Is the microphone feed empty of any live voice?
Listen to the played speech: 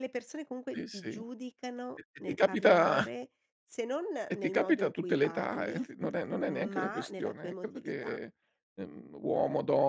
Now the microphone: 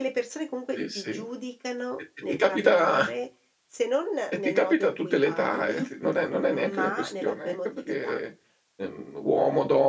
Yes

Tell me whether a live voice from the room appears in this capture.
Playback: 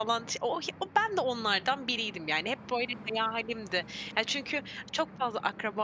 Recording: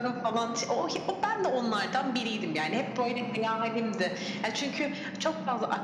No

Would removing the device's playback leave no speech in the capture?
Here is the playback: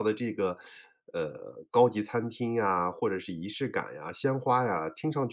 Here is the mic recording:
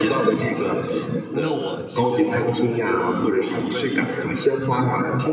No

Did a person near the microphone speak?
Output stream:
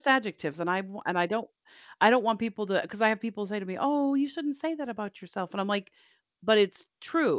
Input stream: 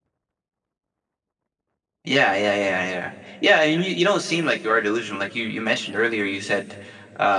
Yes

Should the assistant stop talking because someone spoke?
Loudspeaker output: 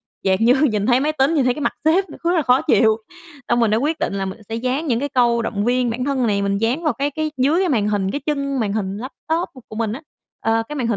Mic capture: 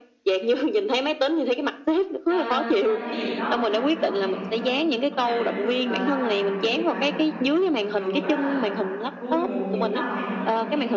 Yes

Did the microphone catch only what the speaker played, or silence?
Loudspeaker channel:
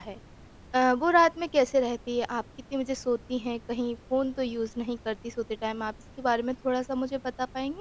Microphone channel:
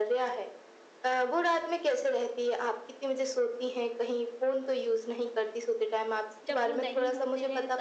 No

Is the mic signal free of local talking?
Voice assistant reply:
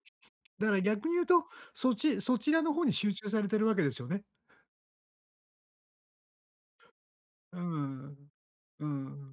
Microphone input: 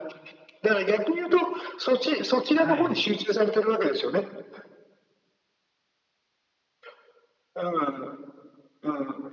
No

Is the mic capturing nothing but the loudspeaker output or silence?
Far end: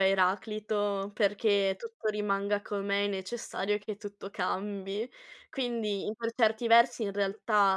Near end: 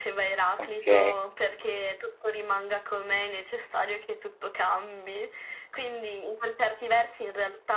No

